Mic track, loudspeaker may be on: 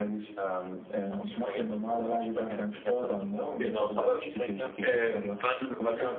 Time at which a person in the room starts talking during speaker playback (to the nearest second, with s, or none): 4 s